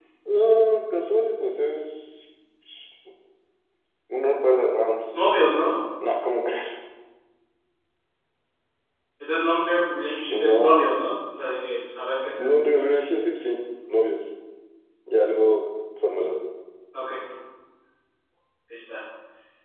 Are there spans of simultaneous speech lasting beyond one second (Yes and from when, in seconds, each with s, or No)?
No